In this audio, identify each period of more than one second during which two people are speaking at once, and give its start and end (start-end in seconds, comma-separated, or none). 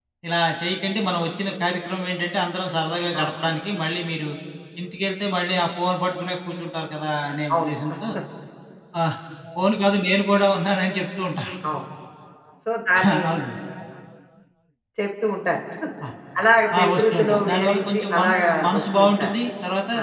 16.8-19.3